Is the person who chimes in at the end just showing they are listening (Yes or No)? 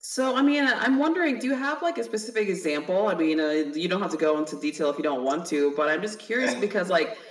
Yes